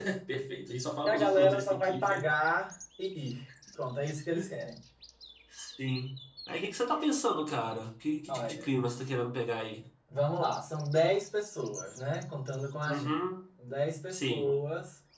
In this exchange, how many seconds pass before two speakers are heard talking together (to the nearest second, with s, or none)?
1 s